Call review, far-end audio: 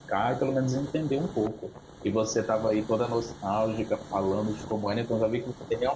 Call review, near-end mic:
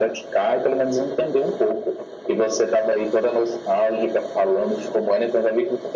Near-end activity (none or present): none